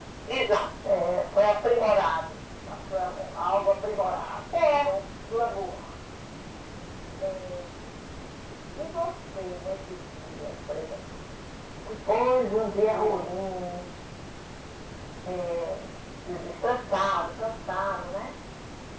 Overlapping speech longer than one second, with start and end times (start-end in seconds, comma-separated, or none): none